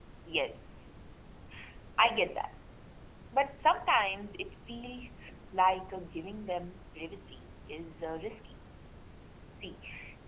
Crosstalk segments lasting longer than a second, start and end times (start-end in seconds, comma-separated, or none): none